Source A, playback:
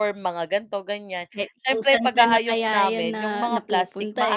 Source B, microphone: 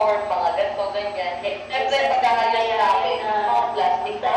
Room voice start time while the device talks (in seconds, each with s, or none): none